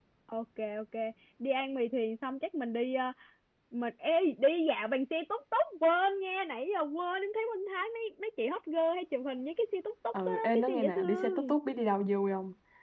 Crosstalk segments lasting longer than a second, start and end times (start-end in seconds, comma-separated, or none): 10.3-11.5